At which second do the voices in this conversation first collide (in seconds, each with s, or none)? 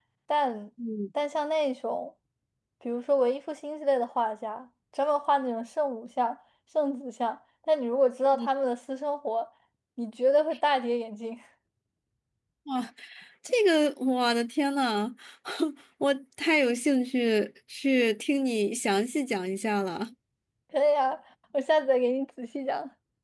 none